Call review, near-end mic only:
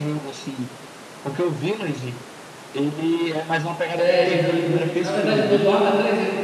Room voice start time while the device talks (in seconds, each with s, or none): 4.0 s